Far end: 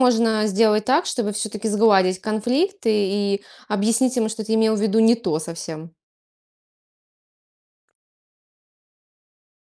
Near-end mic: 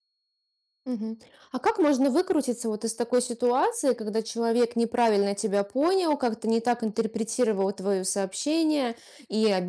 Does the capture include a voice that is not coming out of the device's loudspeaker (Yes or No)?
Yes